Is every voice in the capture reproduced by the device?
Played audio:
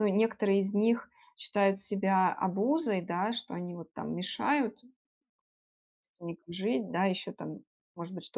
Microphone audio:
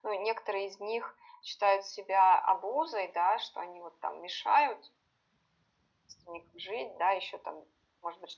Yes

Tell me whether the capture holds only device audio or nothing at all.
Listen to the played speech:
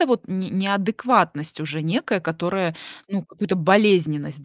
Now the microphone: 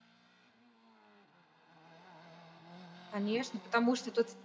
No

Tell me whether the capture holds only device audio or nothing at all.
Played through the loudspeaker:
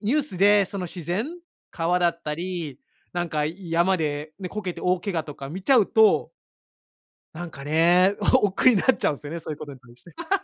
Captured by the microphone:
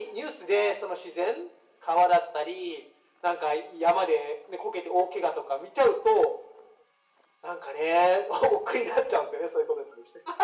Yes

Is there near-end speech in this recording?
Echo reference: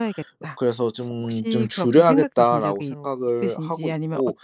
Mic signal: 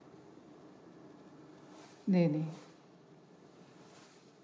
Yes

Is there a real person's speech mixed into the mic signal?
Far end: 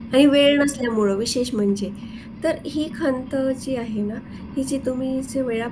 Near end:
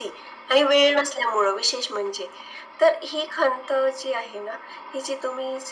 No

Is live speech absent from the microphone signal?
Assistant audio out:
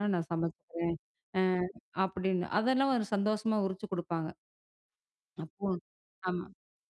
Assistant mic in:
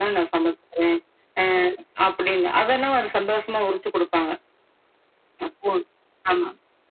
Yes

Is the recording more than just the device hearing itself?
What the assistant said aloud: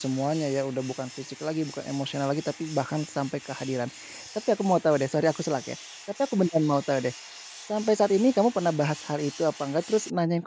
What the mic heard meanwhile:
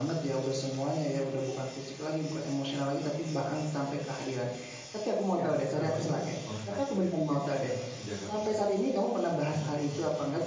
Yes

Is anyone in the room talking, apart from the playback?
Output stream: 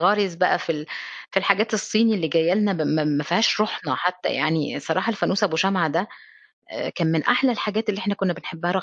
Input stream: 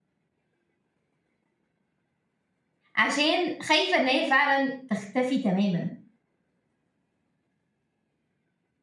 Yes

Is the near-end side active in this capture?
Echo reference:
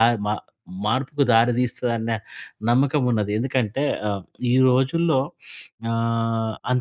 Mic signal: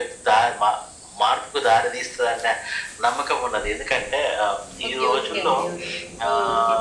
Yes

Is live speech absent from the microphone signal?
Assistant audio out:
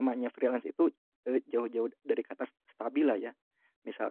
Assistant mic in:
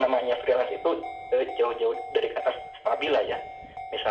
Yes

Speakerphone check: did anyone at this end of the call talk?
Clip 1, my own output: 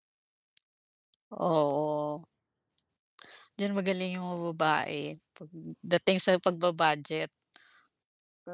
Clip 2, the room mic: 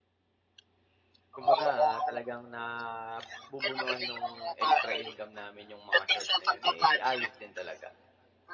Yes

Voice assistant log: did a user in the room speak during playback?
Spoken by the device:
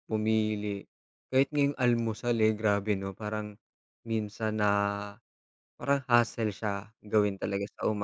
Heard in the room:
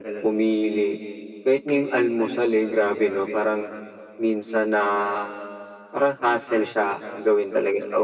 No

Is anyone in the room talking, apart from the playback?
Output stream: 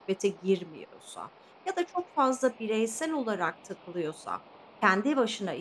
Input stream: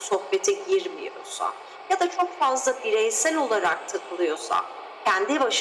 No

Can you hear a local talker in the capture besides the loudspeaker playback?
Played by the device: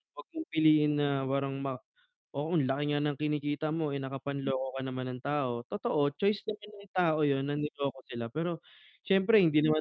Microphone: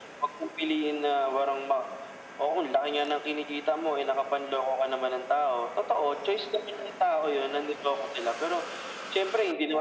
No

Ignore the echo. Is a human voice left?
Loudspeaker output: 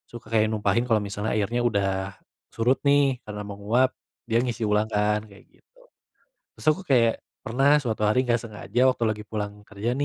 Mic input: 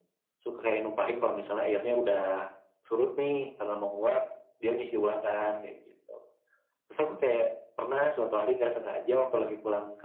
No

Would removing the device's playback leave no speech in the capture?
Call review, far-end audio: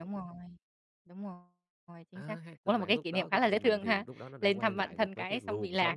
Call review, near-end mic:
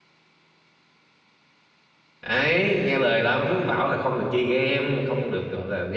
No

